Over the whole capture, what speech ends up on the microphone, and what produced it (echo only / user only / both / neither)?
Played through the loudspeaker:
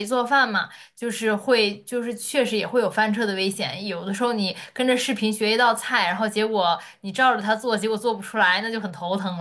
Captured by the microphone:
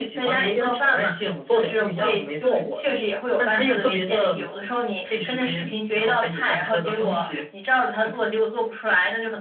both